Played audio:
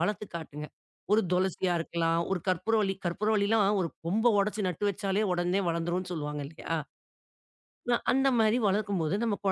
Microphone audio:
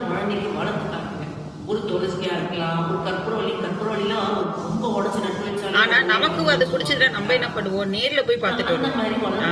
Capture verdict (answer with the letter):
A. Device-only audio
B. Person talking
B